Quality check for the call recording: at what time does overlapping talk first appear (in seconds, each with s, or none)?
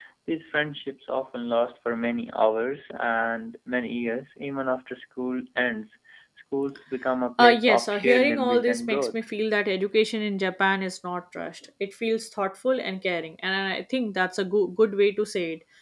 7.4 s